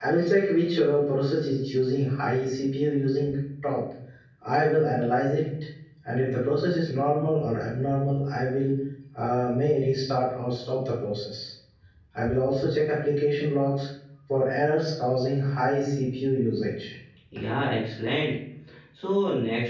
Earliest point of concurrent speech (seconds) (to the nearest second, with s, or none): none